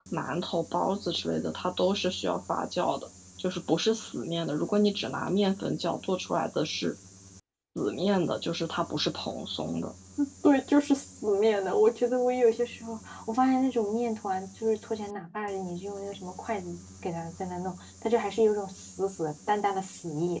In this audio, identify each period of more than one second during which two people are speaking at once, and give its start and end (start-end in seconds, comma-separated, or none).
none